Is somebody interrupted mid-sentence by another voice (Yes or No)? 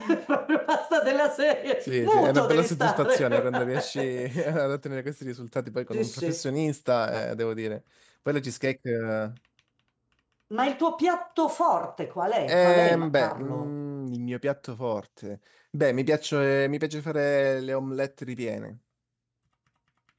Yes